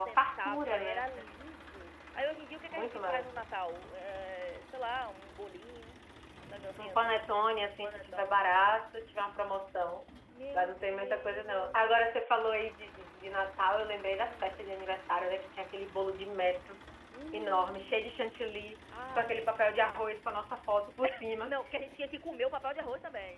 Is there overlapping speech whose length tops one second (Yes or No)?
Yes